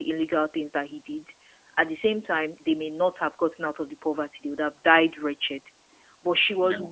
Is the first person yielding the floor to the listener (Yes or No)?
No